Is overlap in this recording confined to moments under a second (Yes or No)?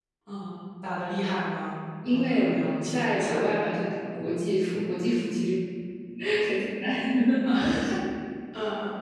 No